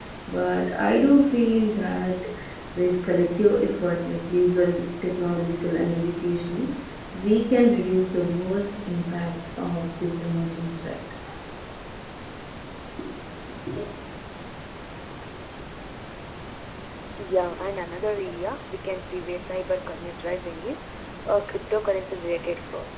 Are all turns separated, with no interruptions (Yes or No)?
Yes